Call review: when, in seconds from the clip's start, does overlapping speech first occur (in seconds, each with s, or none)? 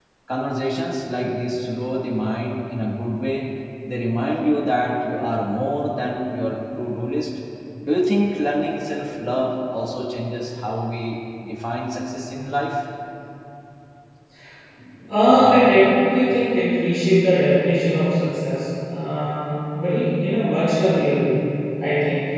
none